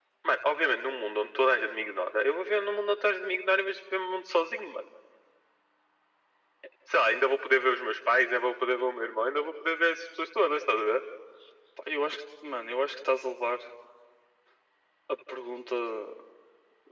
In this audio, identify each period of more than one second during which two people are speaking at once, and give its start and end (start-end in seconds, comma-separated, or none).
none